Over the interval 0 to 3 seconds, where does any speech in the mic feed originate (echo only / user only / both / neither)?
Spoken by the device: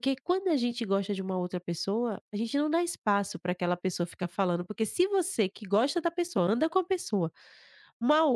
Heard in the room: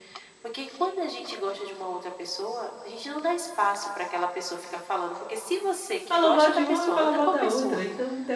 echo only